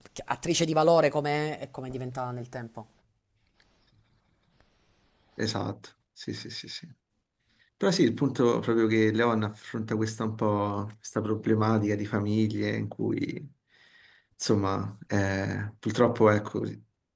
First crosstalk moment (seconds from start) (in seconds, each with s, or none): none